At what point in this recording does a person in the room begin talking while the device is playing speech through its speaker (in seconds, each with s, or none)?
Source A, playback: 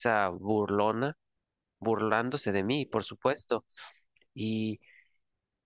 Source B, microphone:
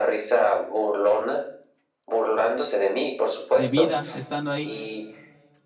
3.5 s